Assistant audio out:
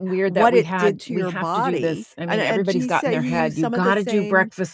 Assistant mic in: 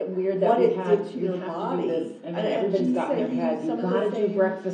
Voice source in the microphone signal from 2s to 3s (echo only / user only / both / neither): echo only